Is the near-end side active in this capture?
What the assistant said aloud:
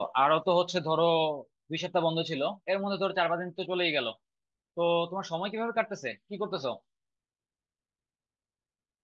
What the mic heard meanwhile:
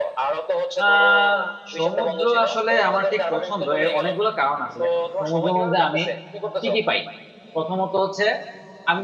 Yes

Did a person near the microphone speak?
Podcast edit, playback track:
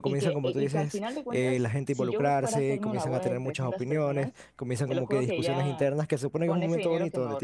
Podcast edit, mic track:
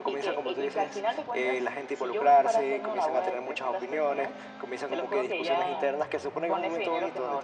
No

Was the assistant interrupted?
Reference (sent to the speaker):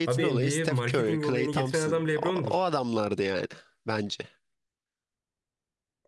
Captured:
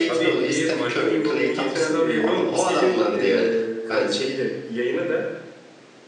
Yes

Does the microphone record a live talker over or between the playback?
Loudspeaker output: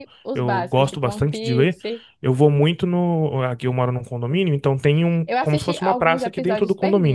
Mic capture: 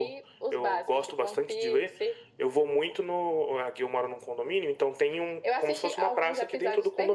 No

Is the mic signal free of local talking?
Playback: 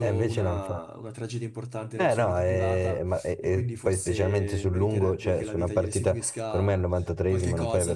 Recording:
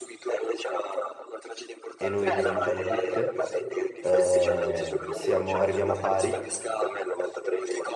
No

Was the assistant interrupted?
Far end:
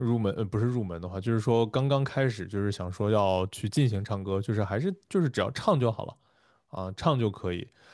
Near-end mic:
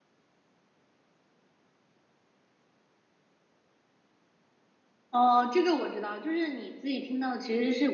Yes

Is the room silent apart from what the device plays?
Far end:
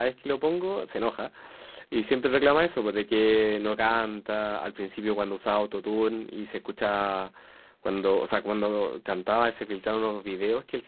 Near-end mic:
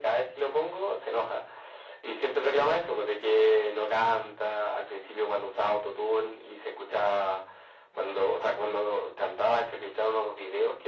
Yes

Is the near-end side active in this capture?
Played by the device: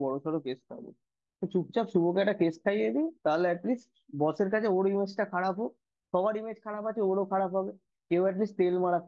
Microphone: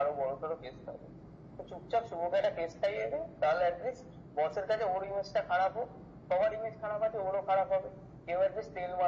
No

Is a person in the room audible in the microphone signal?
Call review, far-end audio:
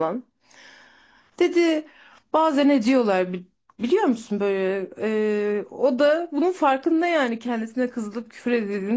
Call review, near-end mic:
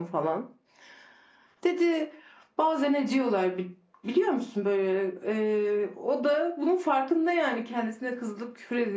No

